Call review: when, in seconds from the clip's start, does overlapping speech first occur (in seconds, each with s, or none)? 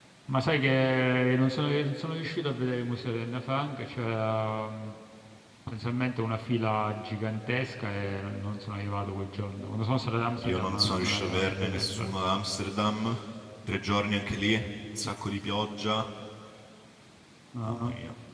10.4 s